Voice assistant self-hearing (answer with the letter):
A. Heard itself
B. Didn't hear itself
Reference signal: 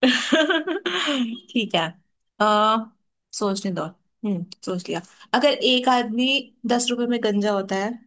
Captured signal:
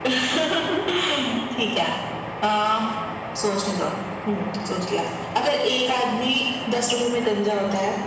A